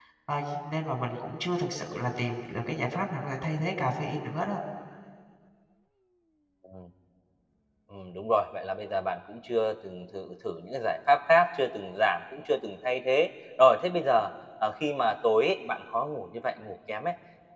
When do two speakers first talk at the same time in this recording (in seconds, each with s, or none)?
none